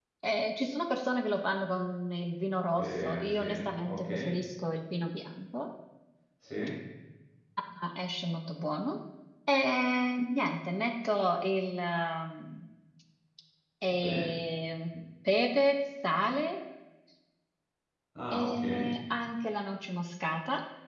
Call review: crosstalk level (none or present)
present